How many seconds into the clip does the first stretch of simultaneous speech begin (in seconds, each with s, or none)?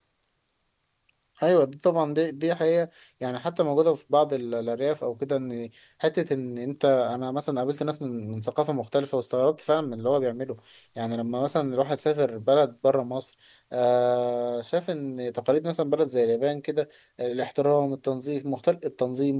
none